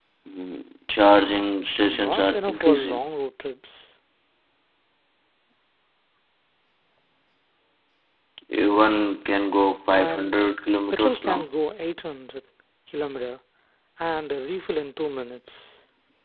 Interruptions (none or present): present